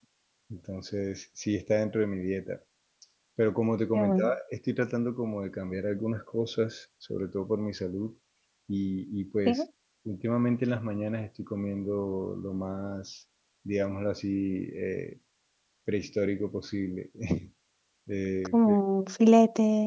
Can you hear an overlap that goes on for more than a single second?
No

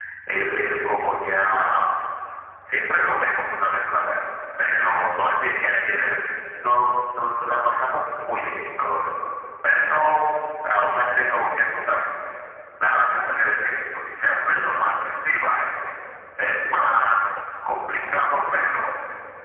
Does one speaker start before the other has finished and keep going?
No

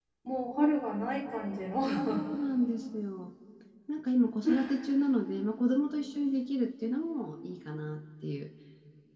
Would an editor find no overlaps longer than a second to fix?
Yes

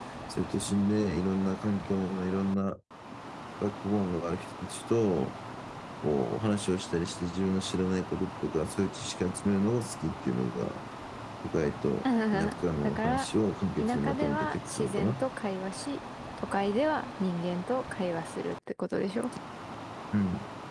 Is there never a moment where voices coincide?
No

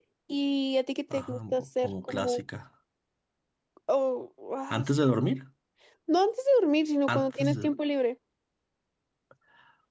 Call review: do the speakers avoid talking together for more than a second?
No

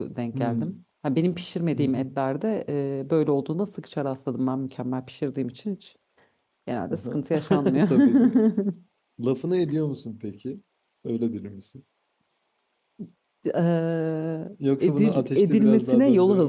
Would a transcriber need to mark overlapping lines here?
Yes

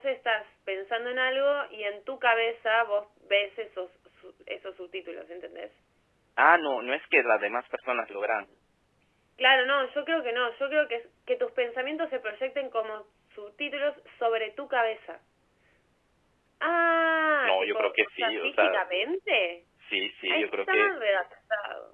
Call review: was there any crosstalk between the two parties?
Yes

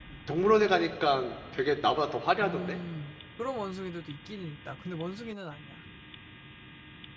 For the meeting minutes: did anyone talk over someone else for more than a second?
No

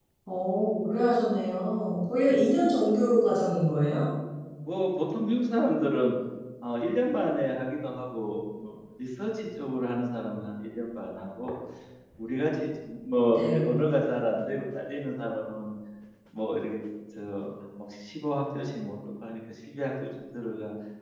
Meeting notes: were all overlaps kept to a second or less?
Yes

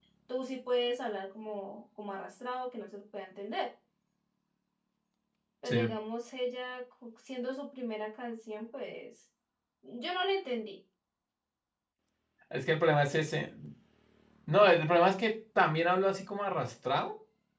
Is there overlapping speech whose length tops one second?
No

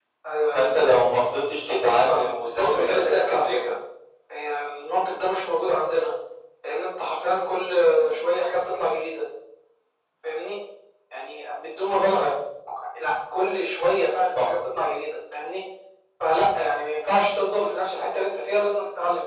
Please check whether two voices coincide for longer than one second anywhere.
Yes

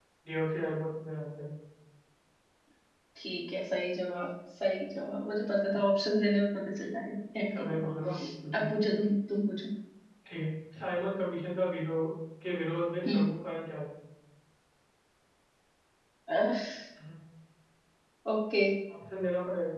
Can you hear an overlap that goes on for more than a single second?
No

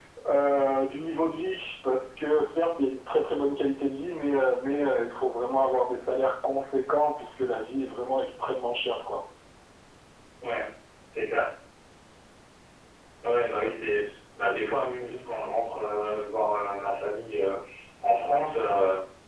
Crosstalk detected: No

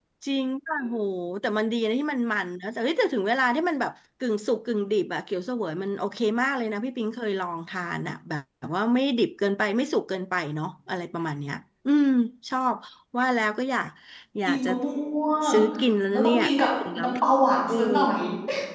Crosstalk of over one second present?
No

